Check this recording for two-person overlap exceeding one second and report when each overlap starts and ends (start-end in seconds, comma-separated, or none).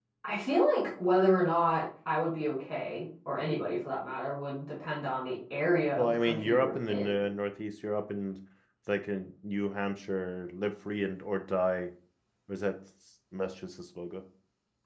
6.0-7.3